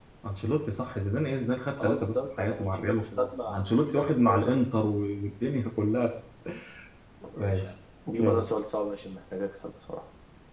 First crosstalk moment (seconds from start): 1.8 s

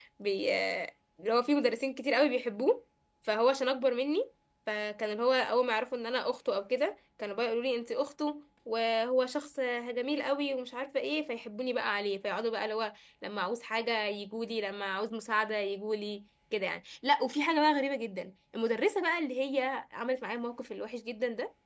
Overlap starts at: none

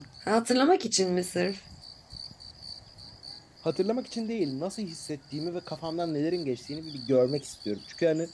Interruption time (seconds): none

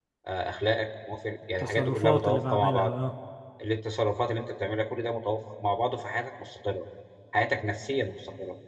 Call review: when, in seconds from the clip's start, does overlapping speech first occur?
1.6 s

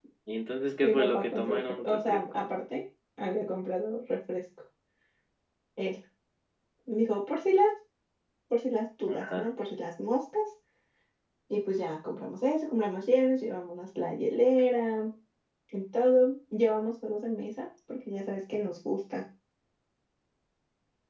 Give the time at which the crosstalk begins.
0.8 s

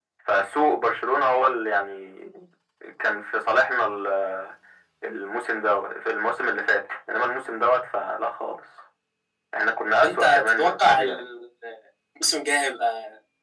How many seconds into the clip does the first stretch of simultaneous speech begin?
10.0 s

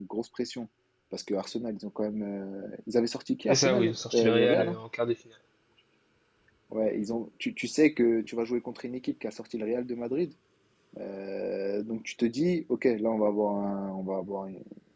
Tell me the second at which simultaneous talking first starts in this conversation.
3.5 s

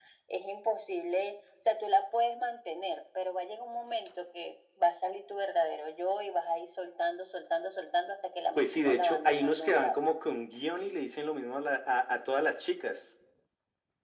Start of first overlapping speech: 8.6 s

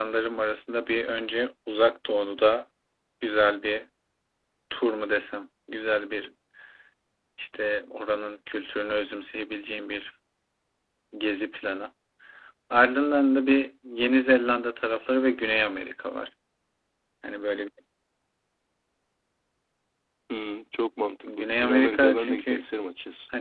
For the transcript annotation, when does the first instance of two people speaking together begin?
21.2 s

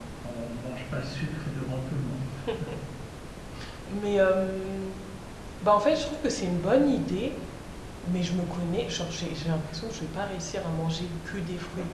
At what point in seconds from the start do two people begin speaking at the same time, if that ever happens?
none

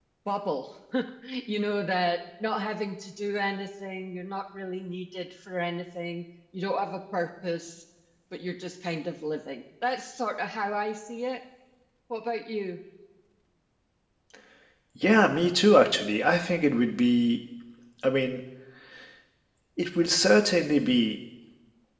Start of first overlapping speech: none

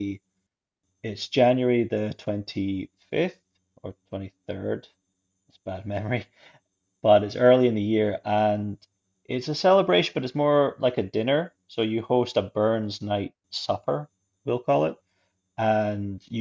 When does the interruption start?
none

